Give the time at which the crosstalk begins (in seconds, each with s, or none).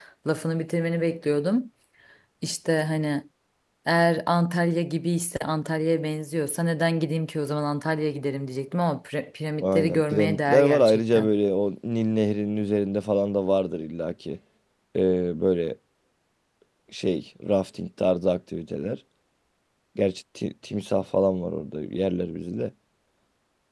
9.6 s